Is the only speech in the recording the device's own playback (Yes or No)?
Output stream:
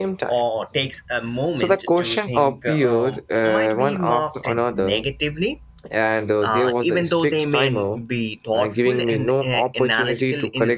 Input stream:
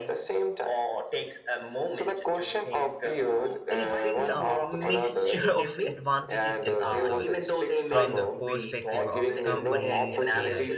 No